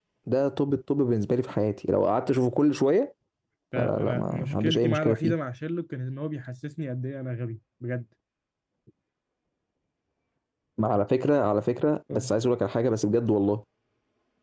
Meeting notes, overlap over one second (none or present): present